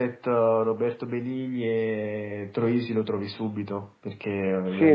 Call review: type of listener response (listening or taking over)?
taking over